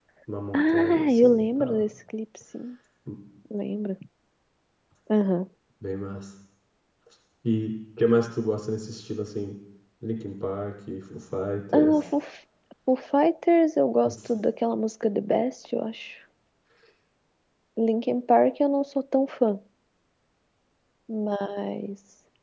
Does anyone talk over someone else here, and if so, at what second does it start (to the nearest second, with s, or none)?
1 s